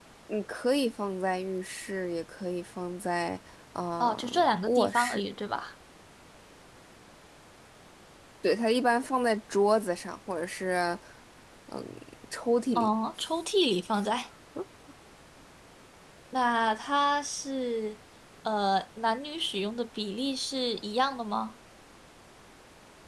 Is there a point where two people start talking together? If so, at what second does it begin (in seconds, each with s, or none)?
4.0 s